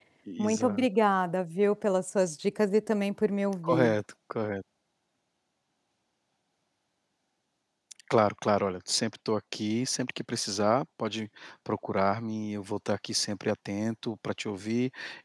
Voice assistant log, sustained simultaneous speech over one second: none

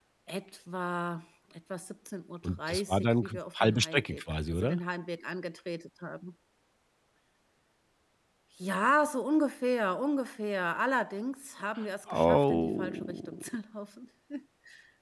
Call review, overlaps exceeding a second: present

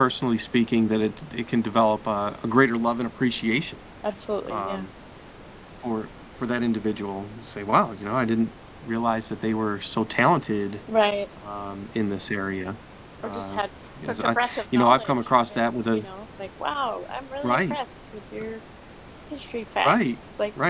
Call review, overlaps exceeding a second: present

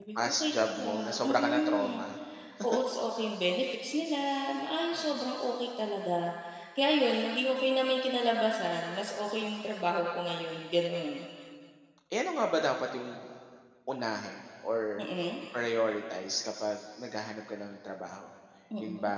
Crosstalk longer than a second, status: present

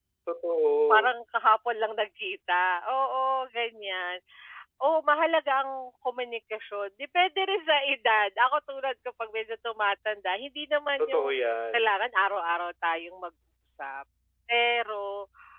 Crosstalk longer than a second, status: none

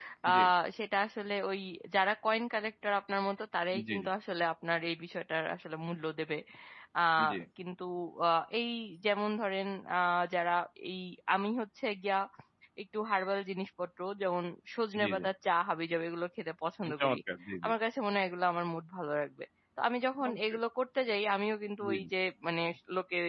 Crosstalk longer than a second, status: none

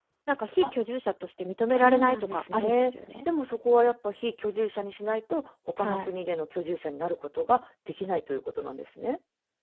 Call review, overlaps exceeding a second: present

